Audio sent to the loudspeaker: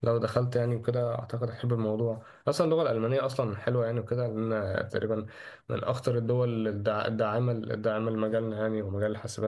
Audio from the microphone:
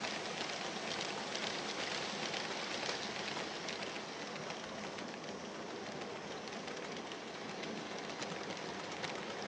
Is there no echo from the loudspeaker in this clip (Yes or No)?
Yes